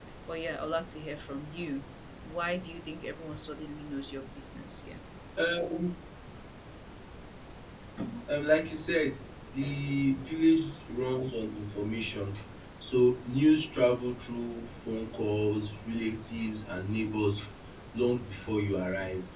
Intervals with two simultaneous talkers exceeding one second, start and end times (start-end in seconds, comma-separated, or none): none